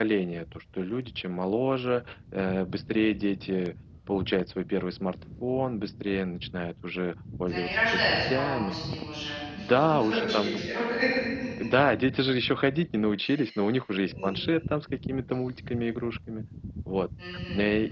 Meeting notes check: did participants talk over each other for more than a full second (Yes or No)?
Yes